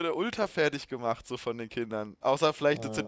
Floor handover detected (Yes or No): No